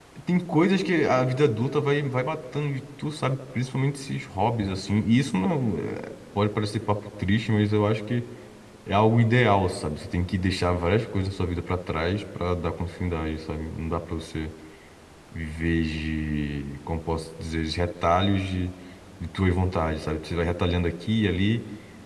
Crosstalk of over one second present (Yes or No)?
No